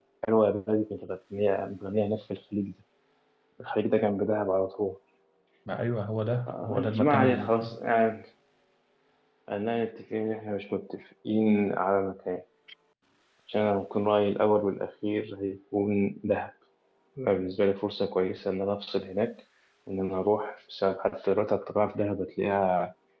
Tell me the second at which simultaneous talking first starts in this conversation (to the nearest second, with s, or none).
6 s